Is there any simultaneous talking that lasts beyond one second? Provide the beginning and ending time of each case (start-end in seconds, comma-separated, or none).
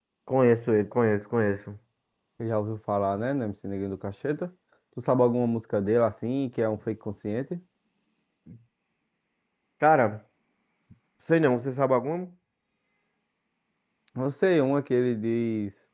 none